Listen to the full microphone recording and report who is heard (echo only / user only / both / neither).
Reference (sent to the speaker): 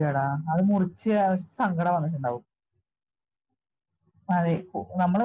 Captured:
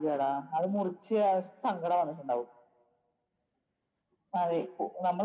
echo only